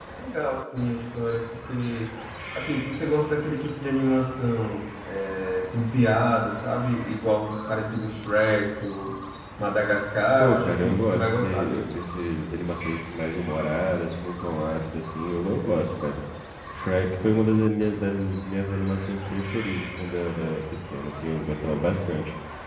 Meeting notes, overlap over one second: present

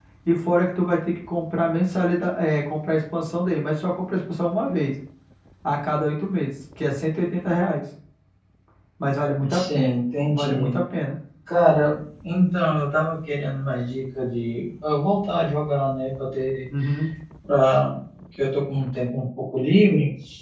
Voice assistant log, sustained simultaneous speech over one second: none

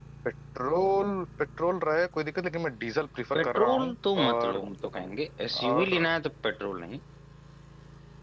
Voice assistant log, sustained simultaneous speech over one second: present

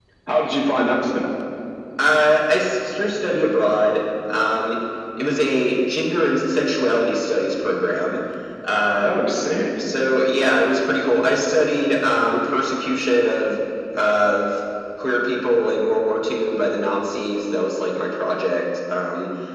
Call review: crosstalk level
none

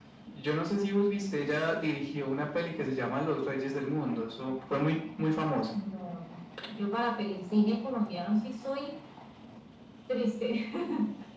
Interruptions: none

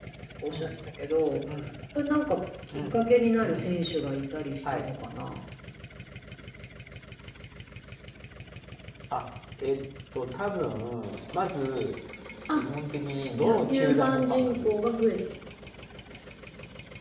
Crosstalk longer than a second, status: present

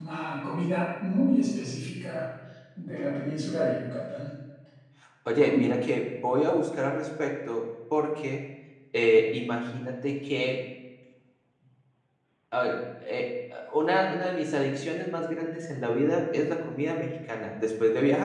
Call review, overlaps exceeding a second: none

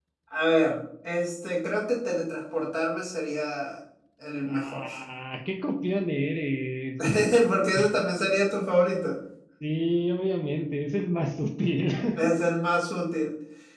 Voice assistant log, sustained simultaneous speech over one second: none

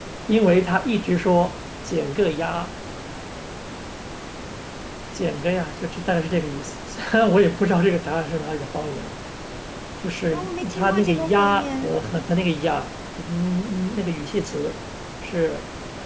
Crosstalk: present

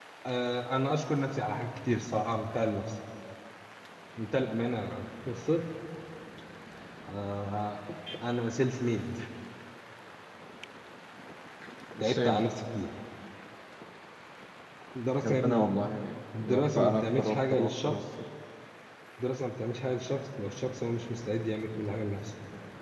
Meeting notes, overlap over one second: present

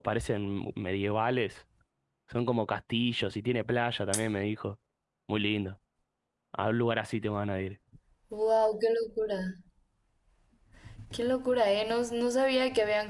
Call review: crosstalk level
none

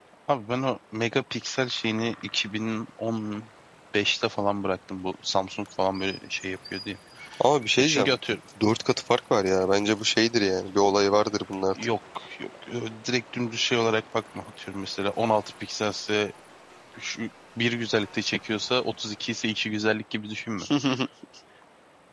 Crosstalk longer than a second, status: none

